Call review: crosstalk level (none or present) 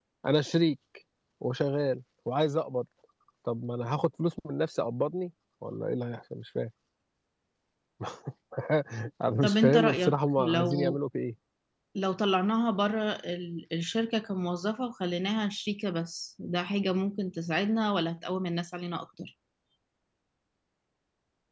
present